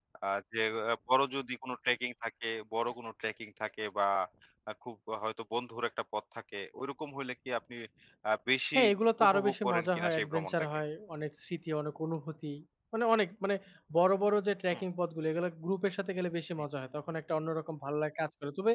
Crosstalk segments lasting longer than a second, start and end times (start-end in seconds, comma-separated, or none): 9.2-10.5